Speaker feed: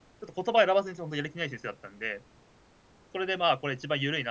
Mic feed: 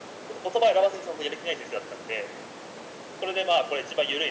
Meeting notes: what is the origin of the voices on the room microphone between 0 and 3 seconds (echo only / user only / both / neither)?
echo only